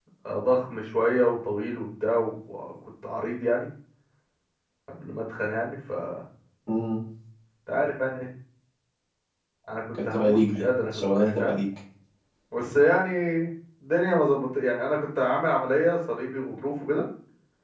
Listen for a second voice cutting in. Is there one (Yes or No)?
Yes